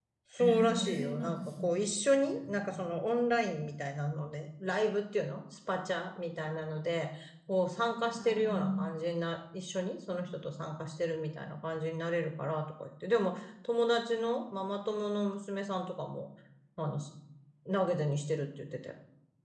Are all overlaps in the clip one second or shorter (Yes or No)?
No